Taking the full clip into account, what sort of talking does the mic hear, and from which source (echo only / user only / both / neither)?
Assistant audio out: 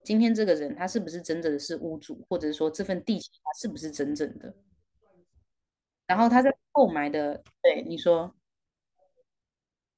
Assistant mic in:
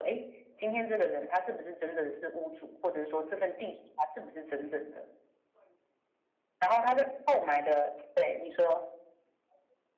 echo only